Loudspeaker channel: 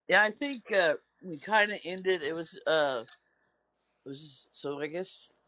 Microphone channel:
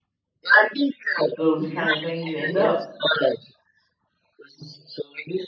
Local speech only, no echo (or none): those kind of things end up.